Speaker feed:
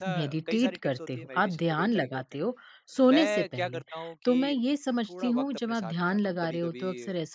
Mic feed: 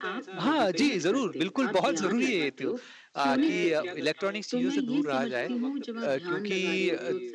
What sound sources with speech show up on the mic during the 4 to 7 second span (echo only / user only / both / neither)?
both